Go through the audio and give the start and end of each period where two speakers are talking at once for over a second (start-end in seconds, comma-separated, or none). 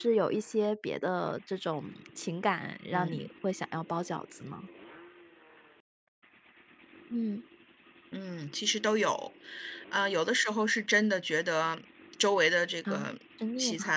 none